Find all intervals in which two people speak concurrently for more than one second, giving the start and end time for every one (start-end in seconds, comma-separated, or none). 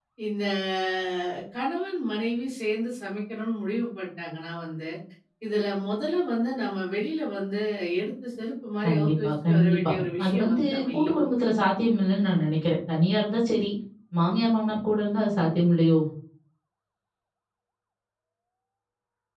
8.8-11.2